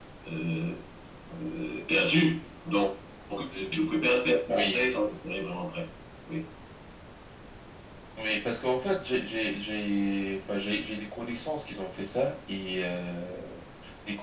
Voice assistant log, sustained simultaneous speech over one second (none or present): none